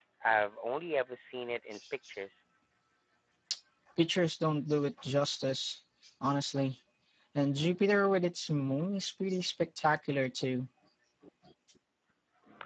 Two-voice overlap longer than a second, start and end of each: none

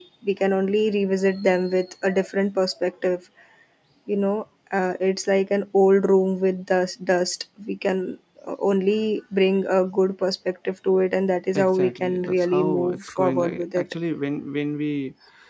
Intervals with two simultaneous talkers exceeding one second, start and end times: 11.6-13.9

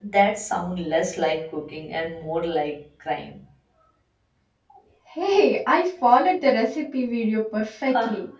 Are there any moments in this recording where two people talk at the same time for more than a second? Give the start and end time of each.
none

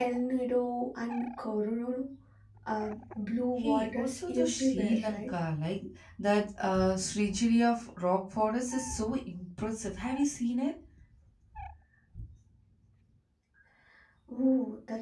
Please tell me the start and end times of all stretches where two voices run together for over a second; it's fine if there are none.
3.6-5.3

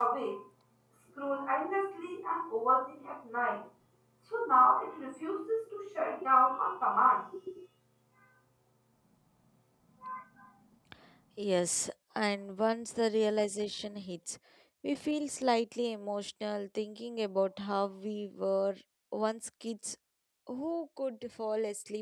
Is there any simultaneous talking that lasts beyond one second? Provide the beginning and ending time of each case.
none

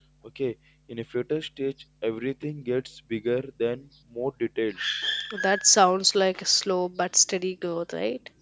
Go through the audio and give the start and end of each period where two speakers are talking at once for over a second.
none

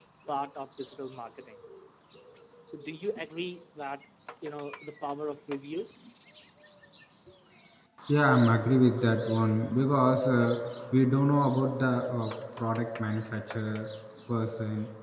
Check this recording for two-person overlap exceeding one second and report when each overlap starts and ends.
none

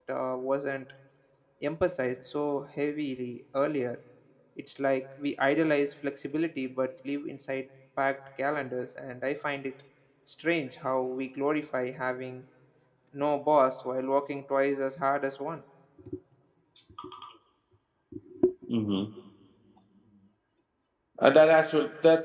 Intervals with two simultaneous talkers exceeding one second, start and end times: none

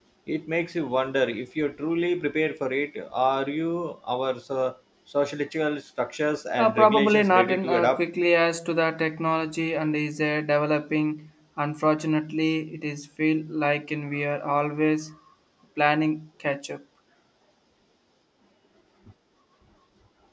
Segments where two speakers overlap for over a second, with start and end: 6.6-8.0

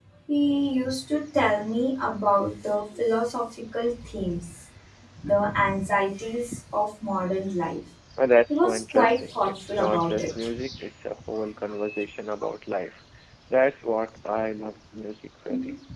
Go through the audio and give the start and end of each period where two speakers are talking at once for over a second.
8.5-10.5

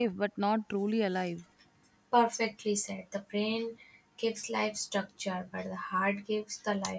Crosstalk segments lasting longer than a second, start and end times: none

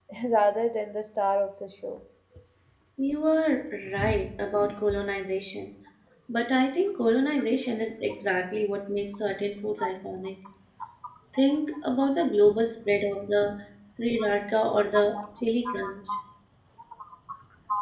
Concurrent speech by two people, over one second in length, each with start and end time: none

